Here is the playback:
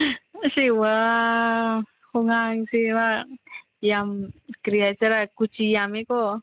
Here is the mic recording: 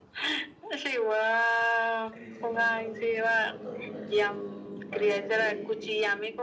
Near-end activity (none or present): present